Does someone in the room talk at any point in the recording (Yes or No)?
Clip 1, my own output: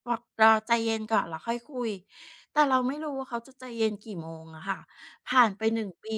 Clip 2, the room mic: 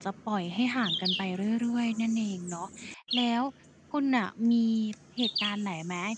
Yes